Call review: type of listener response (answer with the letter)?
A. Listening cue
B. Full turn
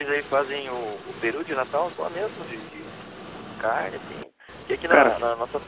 A